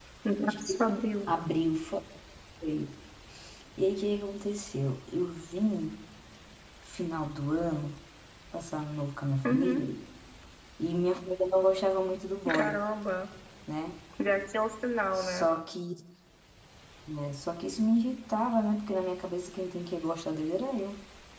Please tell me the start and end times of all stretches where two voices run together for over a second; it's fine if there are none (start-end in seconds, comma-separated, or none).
none